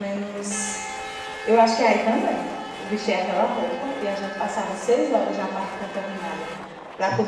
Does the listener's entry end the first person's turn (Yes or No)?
No